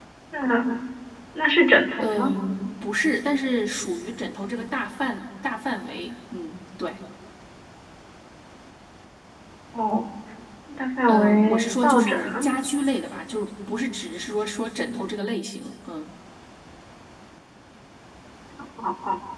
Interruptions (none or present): present